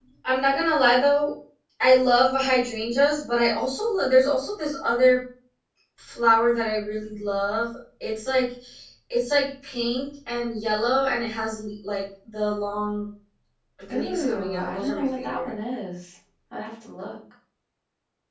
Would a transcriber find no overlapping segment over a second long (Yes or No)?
No